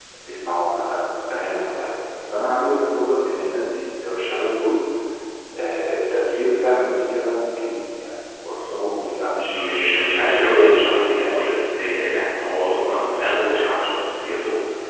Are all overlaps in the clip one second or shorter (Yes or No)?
No